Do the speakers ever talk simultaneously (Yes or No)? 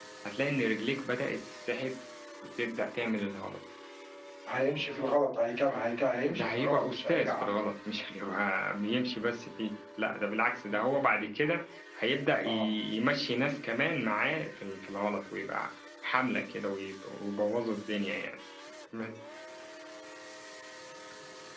Yes